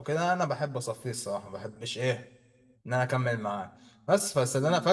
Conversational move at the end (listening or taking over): listening